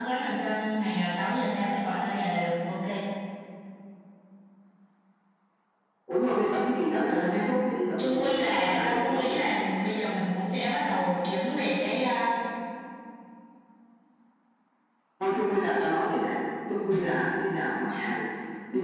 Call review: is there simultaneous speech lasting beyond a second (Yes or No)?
Yes